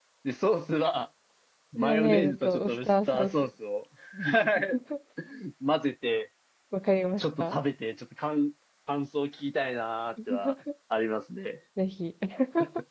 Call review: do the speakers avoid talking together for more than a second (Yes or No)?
No